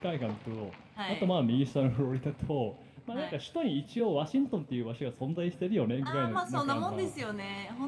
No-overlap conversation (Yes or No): No